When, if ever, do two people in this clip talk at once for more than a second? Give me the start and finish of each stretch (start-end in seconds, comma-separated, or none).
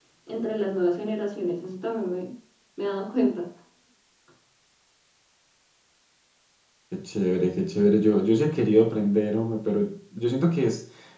none